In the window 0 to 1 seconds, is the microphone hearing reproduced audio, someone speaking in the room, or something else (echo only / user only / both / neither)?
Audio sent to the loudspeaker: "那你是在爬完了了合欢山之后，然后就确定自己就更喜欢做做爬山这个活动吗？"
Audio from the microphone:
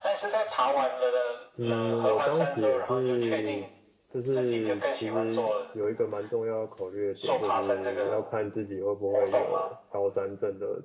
echo only